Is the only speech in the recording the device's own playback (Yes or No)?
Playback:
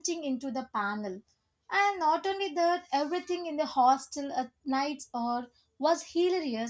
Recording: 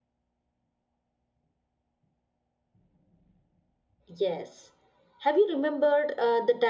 No